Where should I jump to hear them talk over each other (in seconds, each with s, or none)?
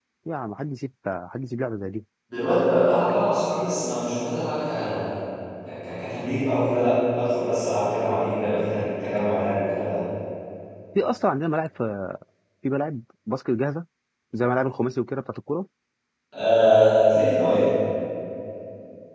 none